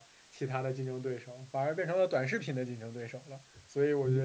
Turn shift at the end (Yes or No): No